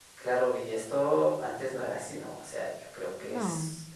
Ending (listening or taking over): listening